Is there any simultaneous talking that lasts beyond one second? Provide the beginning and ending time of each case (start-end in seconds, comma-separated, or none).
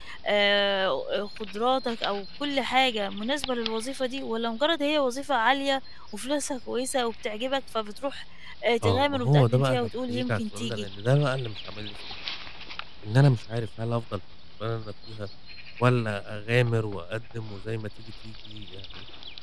8.8-10.9